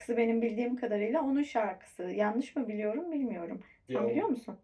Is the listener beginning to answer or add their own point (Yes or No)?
Yes